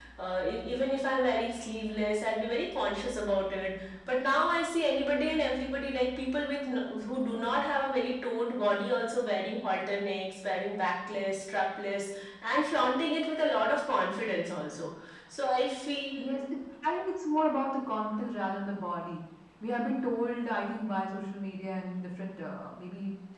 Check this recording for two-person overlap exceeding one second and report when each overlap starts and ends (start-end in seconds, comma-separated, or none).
none